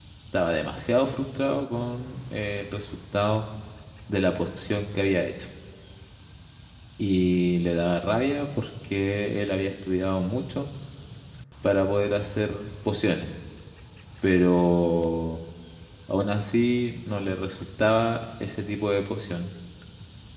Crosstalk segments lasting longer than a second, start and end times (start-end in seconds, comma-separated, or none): none